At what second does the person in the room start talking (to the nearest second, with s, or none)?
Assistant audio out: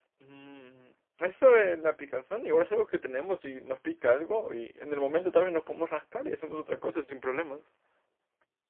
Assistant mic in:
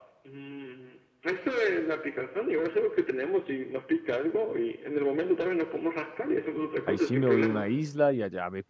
7 s